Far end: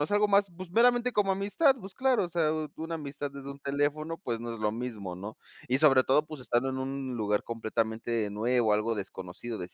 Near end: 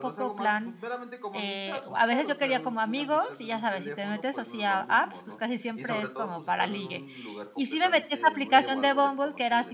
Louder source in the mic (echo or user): user